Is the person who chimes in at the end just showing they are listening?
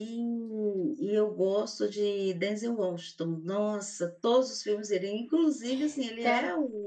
Yes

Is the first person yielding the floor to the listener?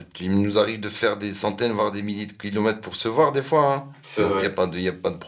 No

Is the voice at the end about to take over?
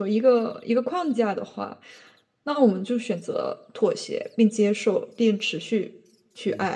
Yes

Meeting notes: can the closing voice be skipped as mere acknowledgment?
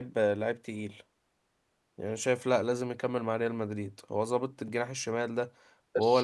No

